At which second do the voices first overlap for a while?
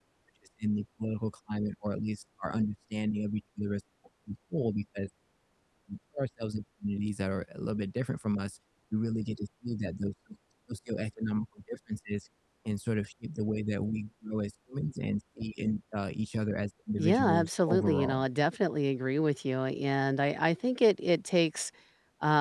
17.0 s

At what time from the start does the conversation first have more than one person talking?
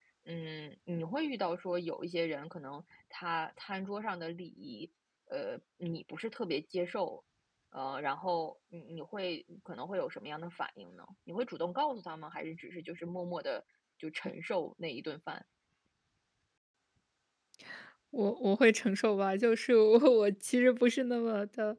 none

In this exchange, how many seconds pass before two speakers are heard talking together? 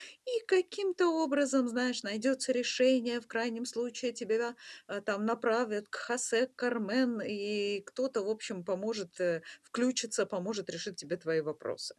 none

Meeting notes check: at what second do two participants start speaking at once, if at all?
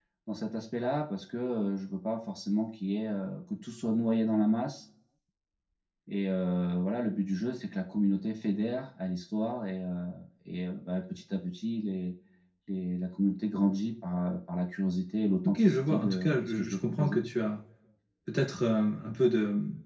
15.4 s

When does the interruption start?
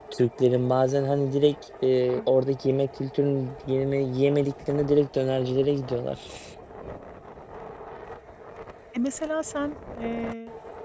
none

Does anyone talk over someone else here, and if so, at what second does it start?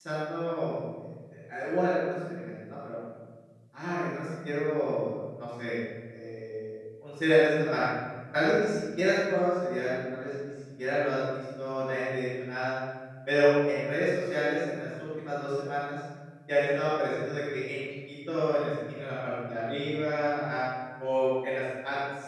none

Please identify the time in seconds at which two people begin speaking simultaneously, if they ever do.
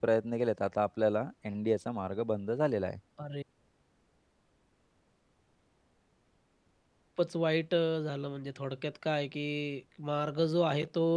none

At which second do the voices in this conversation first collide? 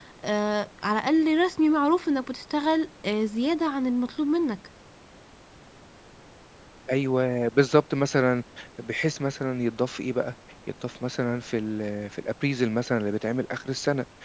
none

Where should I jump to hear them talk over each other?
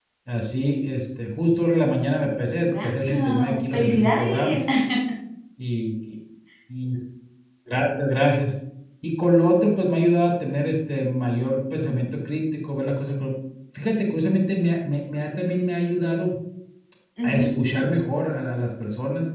2.6 s

